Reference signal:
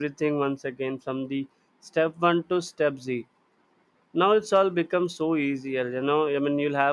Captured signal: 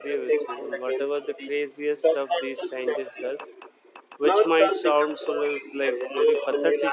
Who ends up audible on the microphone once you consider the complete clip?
both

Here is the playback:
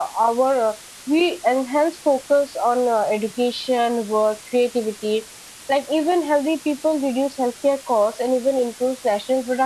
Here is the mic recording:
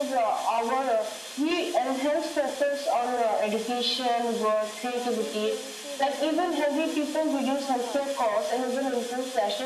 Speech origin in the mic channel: both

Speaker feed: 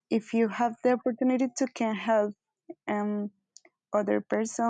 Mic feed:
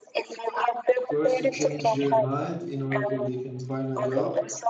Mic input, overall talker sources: both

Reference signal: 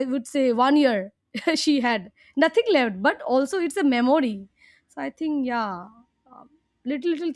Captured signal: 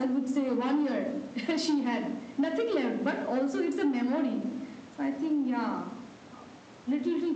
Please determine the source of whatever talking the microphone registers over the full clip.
echo only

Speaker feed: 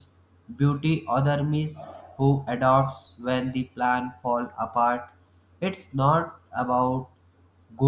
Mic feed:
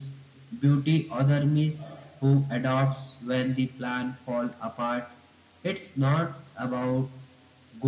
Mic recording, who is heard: echo only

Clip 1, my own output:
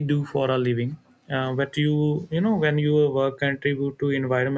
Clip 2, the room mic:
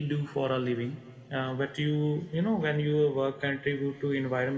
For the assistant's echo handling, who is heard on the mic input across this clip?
echo only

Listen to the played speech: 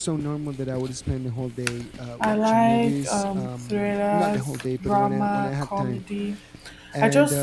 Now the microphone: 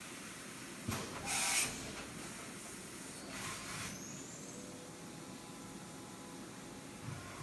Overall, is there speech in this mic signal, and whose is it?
neither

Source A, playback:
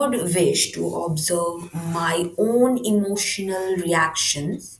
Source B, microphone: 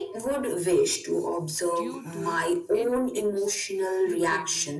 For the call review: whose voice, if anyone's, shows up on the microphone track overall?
both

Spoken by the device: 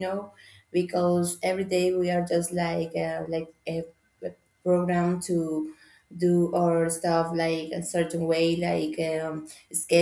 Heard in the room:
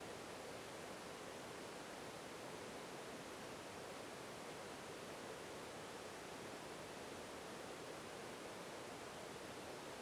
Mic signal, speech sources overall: neither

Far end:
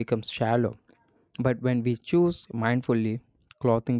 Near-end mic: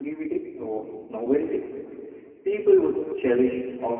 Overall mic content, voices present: user only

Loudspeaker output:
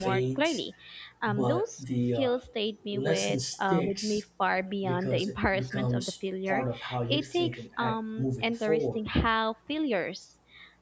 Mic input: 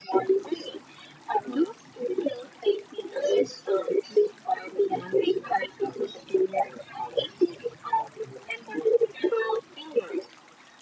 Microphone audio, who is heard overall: echo only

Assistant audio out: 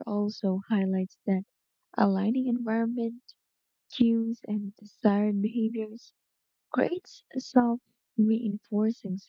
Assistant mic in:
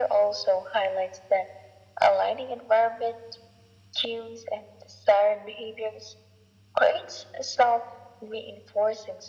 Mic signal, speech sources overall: echo only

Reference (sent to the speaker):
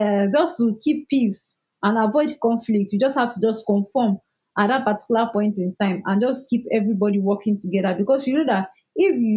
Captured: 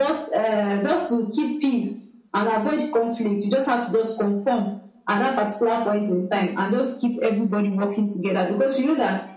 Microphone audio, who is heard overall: echo only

